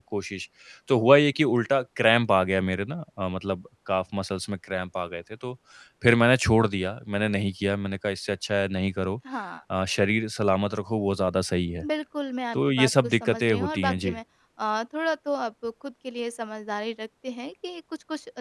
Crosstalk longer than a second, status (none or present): present